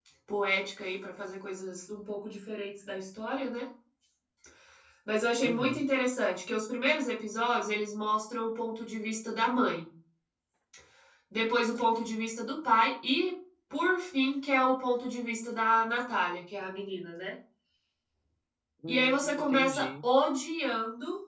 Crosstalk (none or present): present